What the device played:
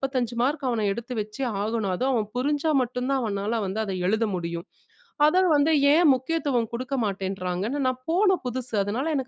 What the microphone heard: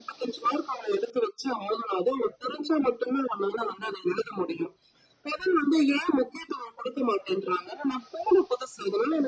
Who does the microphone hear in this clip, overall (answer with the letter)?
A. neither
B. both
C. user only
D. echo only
D